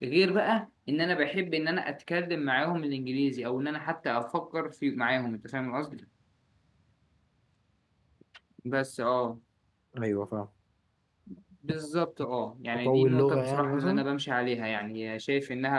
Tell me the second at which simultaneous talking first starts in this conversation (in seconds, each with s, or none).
12.7 s